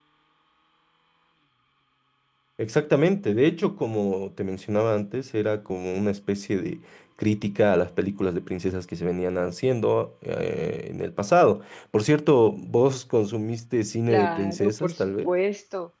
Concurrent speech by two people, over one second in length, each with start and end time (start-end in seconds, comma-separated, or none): 14.1-15.3